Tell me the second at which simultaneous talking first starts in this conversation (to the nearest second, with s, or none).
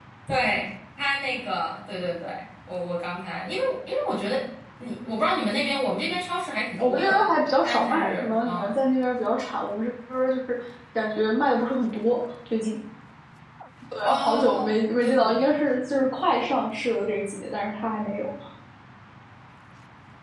7 s